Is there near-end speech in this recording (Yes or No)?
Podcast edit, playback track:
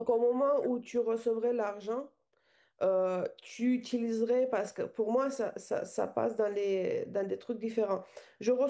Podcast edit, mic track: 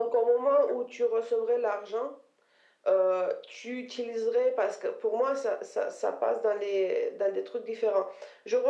No